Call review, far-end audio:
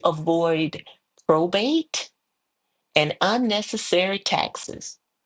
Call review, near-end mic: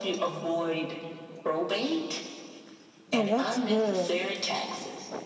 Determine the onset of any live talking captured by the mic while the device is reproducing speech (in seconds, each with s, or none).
3.1 s